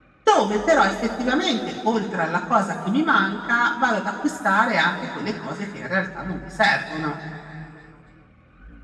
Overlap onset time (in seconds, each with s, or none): none